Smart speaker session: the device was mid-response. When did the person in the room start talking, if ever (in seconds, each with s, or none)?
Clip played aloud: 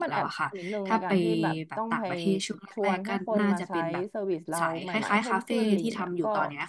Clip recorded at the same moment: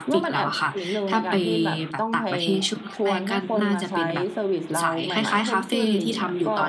none